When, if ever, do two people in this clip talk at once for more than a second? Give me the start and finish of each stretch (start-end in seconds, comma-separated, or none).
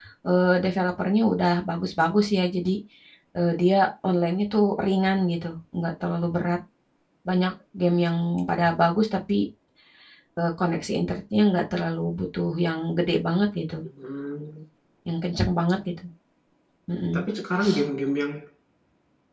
none